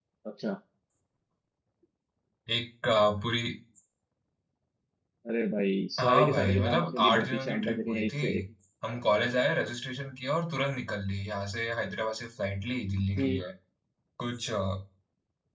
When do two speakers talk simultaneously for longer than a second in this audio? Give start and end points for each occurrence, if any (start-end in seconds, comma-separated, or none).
6.0-8.2